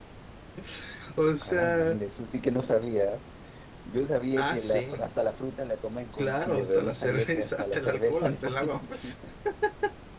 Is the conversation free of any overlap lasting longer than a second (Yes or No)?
No